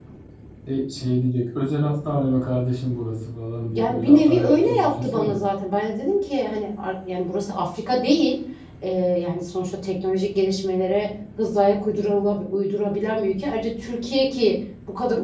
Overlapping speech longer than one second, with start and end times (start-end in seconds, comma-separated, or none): 3.7-5.4